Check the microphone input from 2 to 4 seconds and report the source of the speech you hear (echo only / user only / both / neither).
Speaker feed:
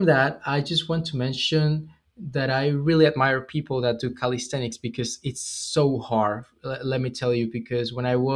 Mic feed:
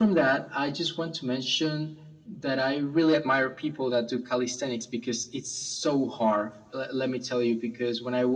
echo only